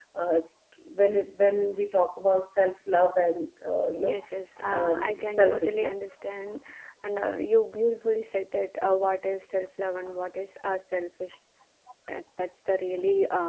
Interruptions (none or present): present